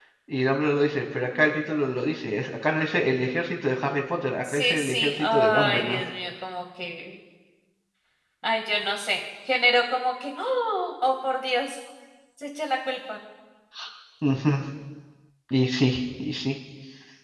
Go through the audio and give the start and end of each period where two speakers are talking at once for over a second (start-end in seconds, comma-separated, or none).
4.4-6.0